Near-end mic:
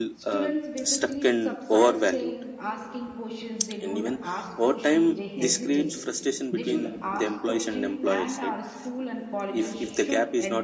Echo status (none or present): present